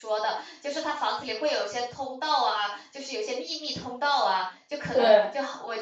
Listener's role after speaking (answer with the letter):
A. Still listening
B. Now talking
A